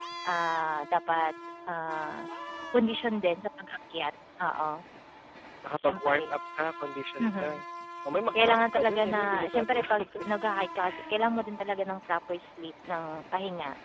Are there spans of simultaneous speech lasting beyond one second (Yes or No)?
Yes